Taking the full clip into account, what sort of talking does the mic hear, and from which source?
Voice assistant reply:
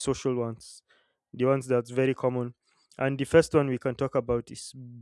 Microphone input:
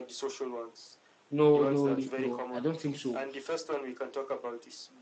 both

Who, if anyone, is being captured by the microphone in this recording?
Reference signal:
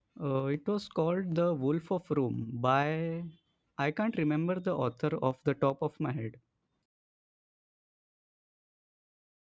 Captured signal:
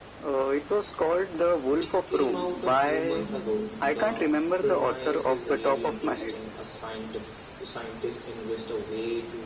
both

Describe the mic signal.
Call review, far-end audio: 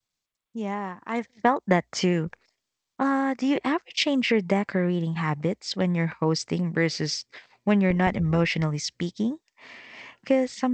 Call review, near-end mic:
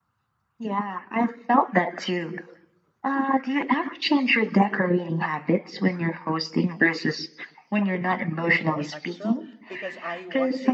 both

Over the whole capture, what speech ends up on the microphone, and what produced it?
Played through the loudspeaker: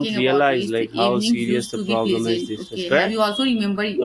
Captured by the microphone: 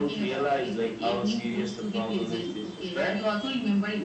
echo only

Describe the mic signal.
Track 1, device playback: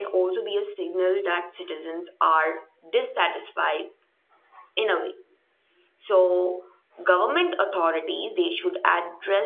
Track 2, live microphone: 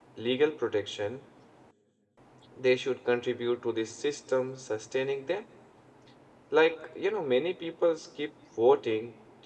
user only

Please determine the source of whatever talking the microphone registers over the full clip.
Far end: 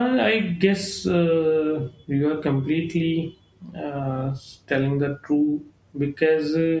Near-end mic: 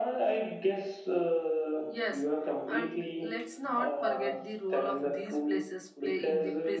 both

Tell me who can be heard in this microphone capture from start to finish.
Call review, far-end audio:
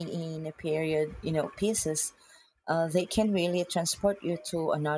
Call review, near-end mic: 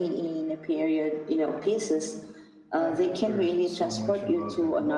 both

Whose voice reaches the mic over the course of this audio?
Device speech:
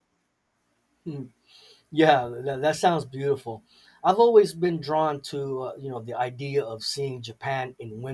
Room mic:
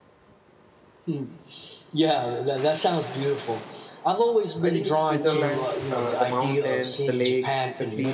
both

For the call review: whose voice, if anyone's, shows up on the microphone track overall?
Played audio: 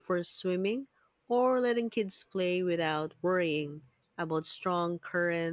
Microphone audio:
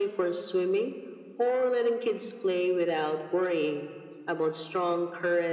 echo only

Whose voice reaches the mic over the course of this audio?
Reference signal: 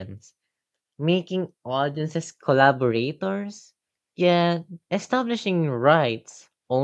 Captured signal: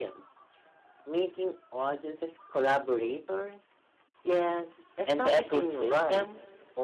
both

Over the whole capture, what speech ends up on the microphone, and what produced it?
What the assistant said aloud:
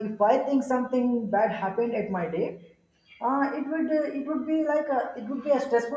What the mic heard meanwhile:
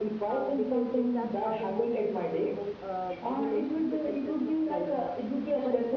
both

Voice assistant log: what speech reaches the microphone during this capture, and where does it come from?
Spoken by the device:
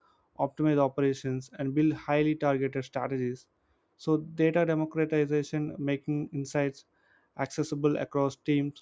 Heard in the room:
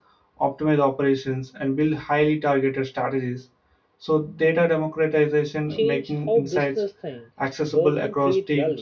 both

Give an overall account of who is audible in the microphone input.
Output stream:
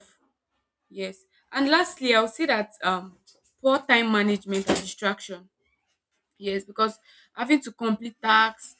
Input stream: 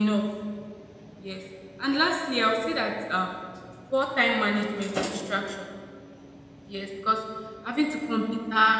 echo only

